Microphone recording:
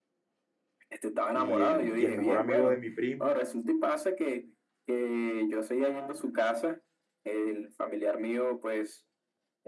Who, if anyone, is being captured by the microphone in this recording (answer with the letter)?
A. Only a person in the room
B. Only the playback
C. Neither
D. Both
D